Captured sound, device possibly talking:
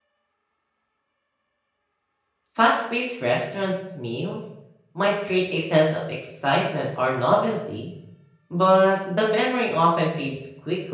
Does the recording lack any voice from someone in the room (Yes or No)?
No